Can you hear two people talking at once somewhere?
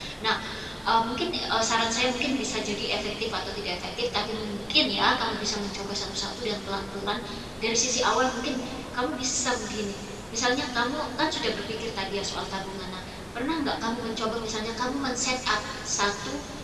No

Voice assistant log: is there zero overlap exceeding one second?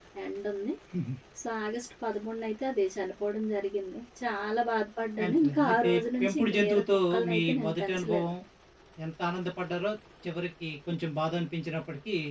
No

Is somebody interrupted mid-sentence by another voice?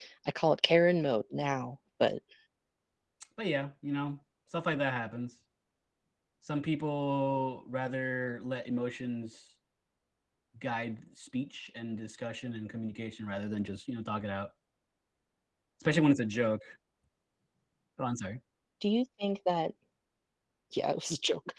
No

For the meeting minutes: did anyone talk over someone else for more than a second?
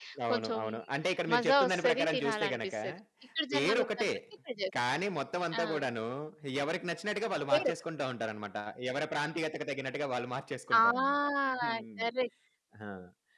Yes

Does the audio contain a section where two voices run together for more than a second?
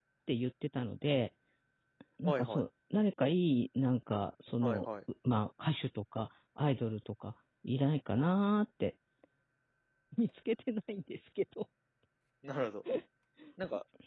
No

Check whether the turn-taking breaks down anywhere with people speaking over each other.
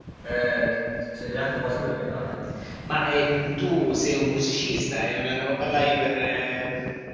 No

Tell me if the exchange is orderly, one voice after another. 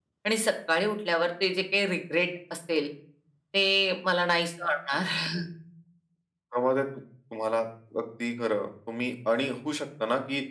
Yes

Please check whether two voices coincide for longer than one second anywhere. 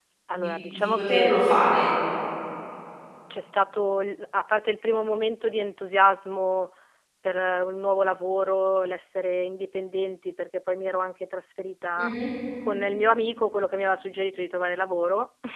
Yes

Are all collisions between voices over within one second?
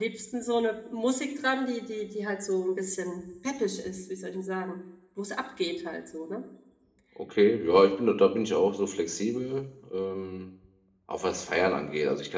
Yes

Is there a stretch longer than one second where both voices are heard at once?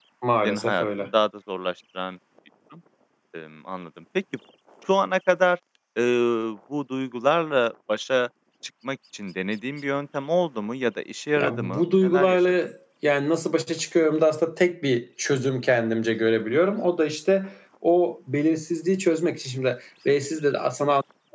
Yes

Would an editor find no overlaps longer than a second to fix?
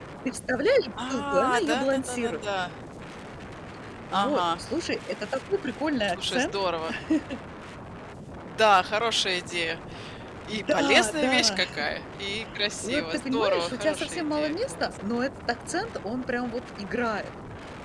No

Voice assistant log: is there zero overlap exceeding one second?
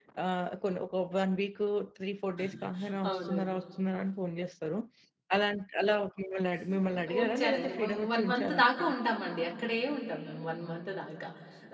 No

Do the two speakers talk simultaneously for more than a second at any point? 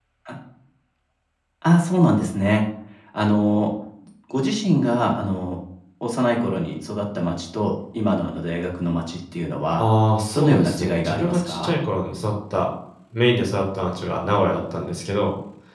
Yes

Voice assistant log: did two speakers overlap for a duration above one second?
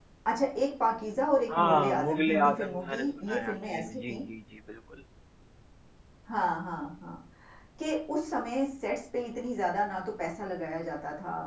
Yes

